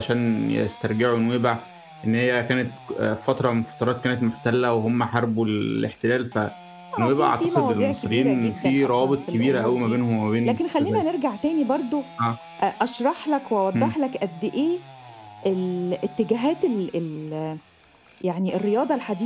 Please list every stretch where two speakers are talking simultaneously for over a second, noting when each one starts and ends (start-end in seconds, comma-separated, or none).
7.0-10.0